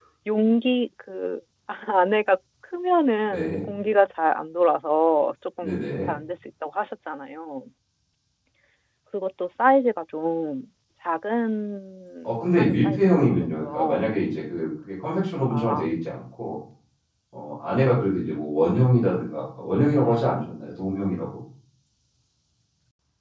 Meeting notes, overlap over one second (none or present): present